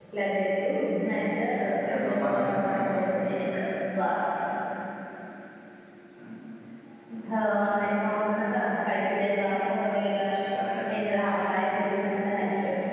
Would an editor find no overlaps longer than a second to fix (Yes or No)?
No